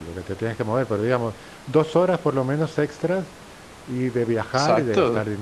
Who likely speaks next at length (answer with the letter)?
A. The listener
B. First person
A